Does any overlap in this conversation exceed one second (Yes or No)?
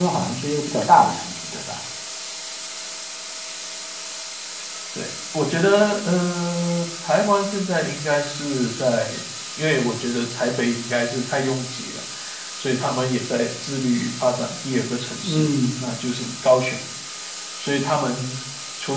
No